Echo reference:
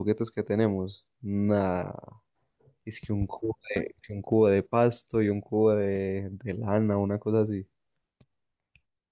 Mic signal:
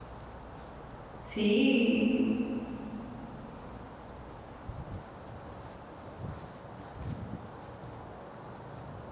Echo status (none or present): none